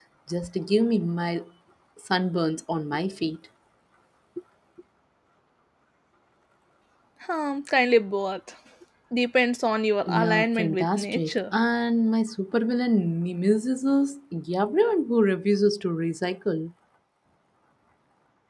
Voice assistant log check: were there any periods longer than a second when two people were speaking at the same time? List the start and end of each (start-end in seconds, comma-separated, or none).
10.1-11.5